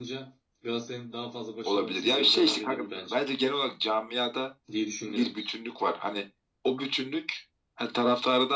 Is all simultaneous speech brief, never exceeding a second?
No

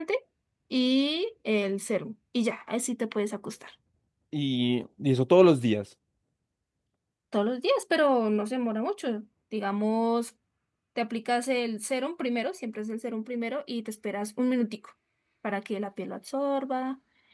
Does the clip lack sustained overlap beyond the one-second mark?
Yes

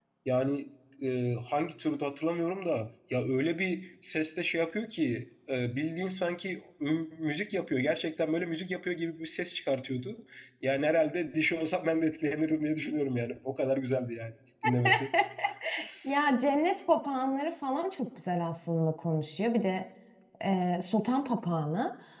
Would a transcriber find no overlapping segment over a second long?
Yes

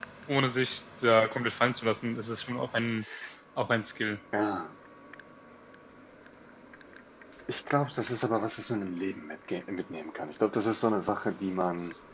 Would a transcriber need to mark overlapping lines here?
No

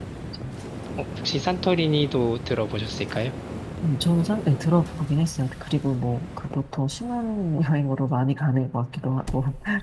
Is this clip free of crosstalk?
Yes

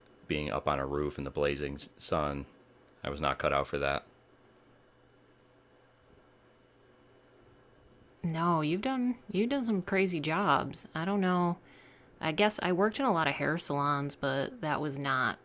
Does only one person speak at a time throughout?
Yes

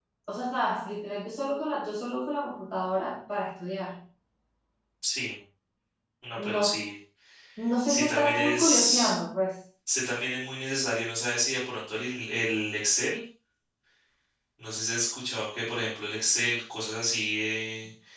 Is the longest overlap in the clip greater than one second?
Yes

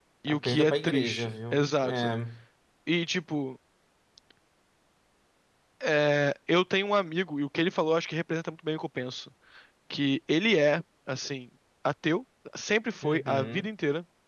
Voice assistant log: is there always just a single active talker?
No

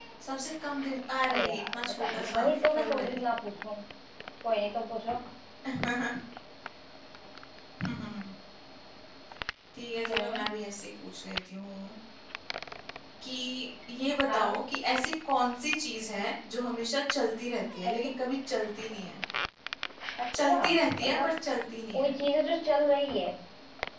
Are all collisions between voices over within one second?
No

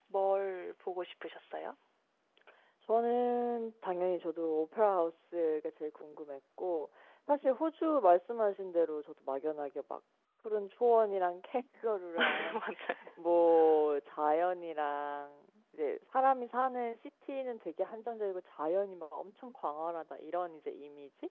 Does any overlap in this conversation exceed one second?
No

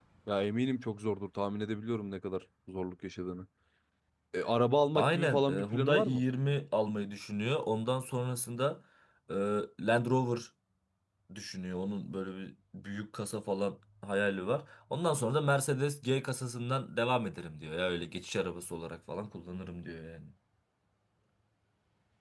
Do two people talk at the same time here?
Yes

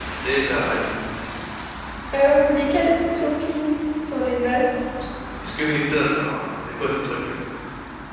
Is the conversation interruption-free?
Yes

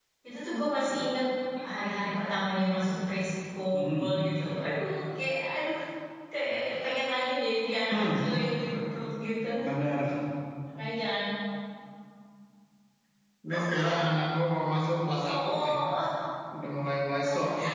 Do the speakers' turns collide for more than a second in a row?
No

